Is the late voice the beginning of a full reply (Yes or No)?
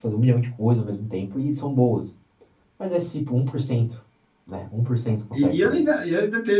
Yes